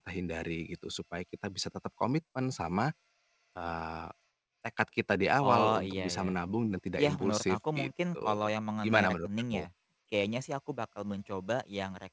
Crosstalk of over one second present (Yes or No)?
Yes